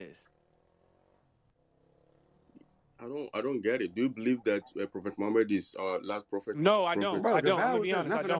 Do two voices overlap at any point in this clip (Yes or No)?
Yes